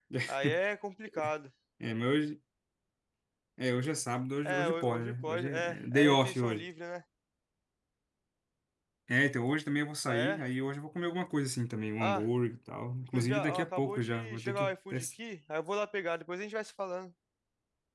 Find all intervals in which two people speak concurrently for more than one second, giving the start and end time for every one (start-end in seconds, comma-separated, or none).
4.5-6.6, 13.1-15.0